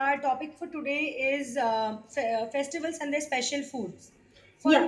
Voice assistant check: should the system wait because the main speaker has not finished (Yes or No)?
Yes